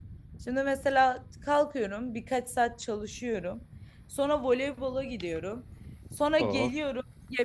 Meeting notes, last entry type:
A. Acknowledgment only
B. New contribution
A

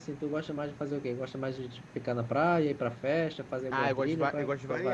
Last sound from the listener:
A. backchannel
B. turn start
B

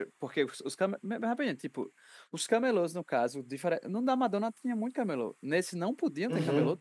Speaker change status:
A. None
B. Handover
B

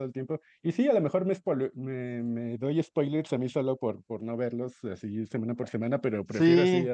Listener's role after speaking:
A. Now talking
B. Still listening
A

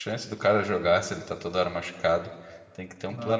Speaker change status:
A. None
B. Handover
A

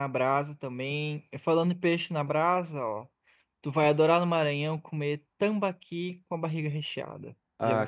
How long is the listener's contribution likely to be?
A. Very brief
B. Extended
B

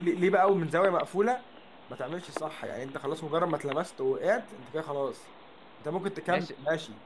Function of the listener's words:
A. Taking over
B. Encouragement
B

